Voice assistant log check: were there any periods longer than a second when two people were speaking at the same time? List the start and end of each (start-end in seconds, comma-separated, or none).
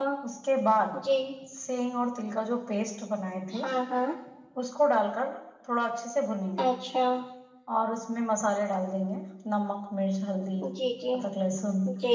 none